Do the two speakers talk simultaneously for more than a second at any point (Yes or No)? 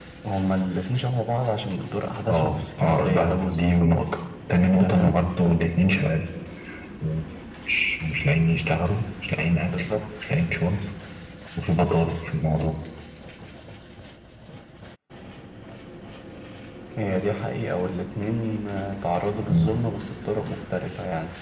Yes